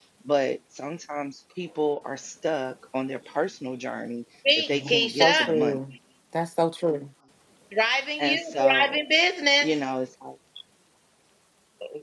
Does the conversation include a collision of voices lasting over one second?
Yes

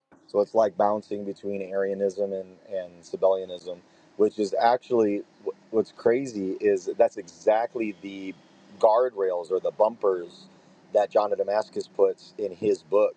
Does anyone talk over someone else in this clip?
No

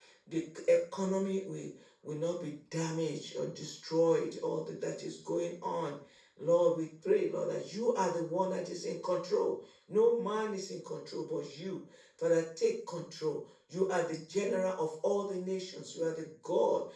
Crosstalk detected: No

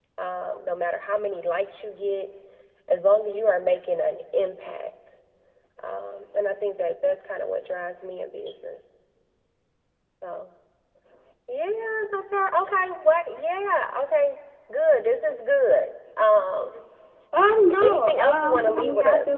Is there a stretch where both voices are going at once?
Yes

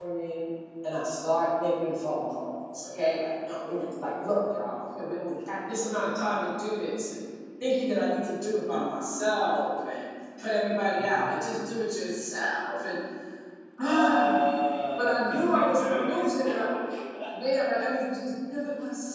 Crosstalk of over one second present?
Yes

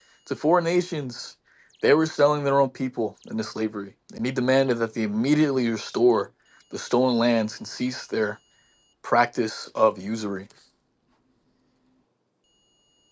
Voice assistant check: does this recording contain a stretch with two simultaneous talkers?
No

